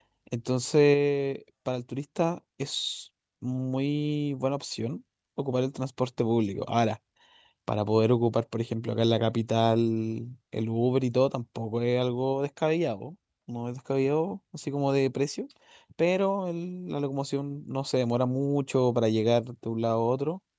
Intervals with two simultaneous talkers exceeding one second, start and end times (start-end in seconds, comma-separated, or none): none